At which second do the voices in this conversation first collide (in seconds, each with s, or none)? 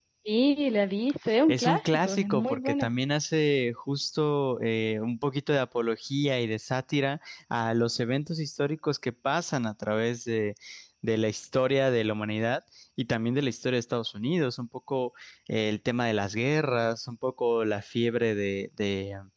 1.3 s